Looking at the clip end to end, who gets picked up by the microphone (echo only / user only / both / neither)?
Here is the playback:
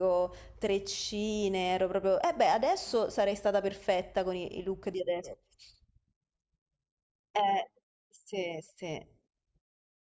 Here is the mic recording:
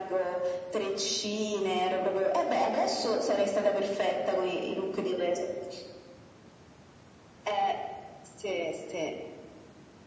echo only